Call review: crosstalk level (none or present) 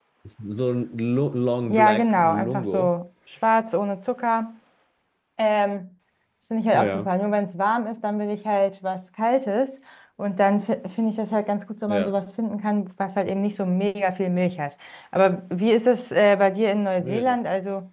present